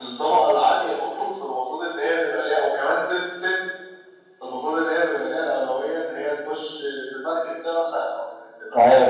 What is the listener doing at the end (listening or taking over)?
taking over